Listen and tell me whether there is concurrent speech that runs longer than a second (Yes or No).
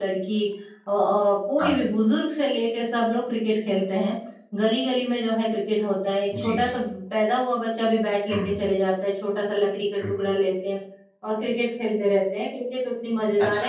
No